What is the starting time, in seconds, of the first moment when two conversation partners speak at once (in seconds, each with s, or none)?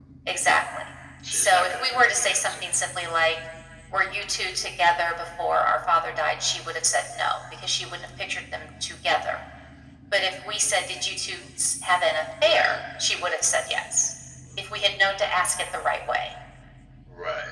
1.3 s